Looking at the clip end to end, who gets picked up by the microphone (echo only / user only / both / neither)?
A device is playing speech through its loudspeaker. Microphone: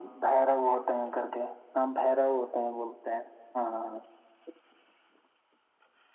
echo only